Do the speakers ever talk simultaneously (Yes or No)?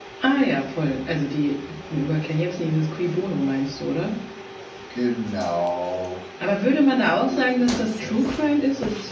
Yes